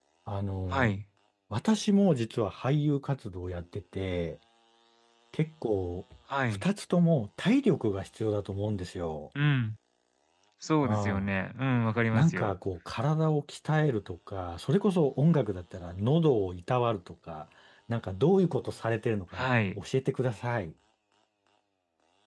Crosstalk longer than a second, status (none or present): none